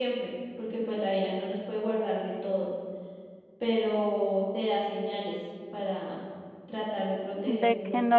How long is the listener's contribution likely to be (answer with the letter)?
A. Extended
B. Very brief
A